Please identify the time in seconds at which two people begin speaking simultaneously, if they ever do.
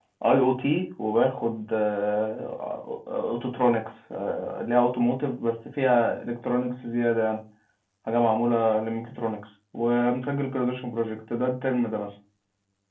none

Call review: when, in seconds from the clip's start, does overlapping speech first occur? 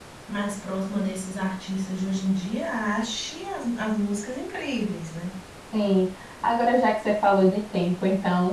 none

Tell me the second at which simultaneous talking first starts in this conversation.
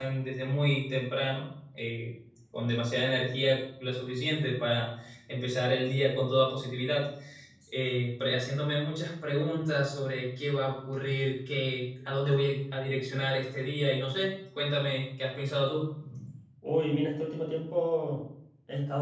none

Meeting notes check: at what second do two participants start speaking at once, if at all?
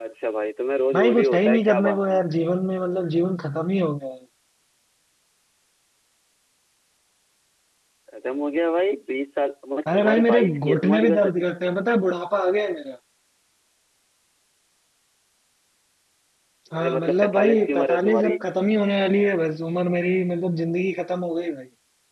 1 s

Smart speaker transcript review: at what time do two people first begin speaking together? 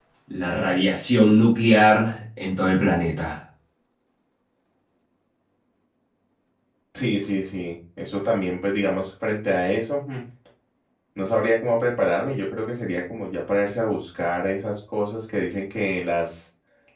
none

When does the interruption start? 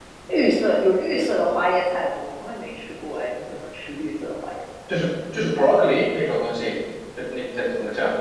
none

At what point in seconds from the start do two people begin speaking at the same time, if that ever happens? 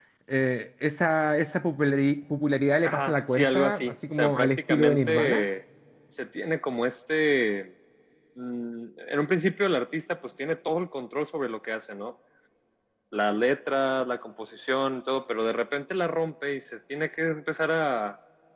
3 s

